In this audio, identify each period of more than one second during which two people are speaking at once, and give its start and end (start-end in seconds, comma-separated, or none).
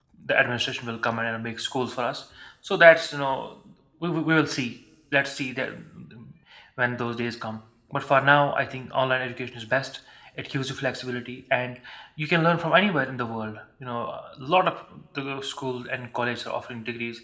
none